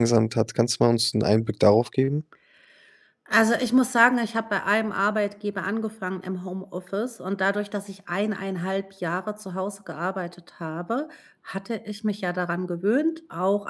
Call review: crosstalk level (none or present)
none